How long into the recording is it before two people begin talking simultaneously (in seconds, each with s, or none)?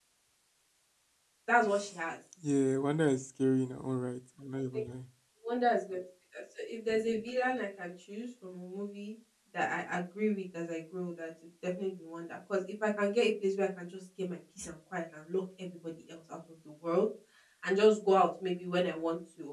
none